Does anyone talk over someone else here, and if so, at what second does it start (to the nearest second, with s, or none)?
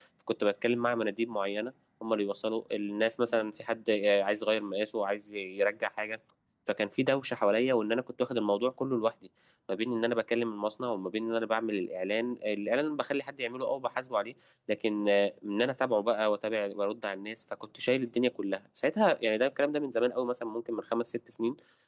none